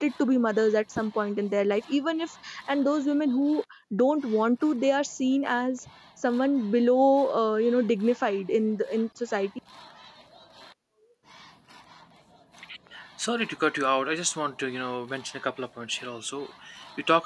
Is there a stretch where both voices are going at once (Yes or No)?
No